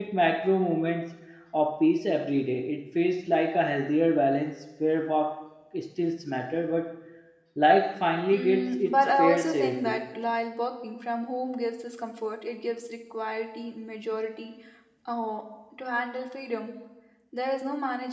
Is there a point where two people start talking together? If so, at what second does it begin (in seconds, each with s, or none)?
8.3 s